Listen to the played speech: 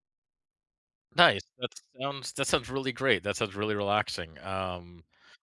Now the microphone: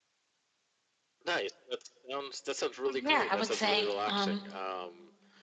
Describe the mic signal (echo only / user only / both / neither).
both